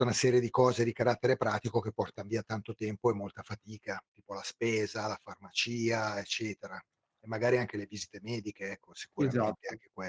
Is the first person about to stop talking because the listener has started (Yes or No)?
Yes